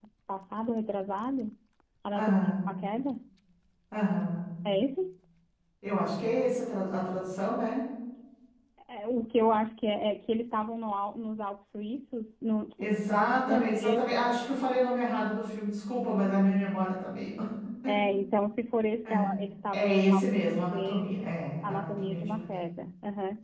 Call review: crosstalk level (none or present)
present